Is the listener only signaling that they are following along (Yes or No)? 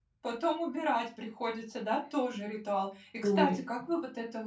Yes